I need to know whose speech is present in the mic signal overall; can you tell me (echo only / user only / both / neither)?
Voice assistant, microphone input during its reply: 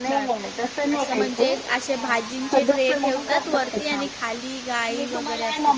both